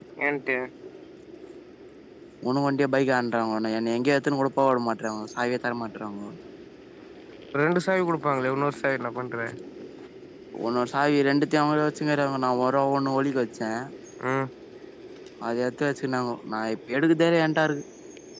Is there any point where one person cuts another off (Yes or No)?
No